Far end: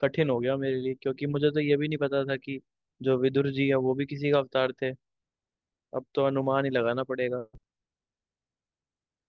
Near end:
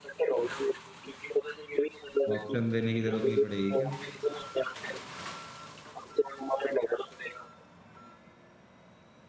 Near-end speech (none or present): present